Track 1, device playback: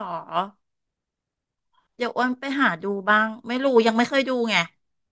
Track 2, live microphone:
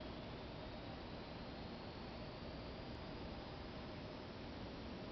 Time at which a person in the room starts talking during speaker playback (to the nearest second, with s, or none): none